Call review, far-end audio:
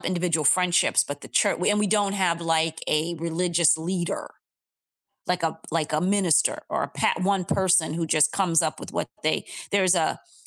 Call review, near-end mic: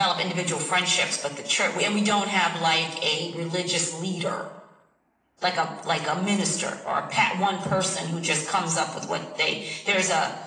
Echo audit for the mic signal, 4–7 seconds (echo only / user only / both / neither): echo only